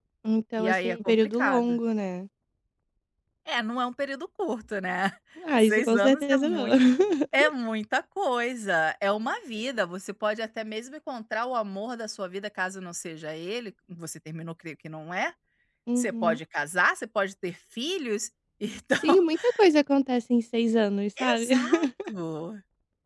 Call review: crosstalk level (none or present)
present